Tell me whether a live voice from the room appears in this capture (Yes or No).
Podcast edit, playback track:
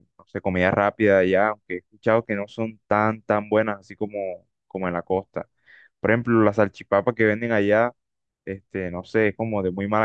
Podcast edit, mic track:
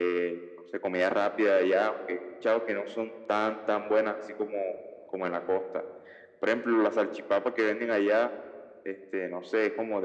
No